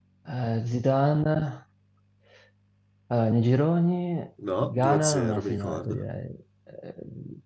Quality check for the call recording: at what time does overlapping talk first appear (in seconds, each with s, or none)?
4.4 s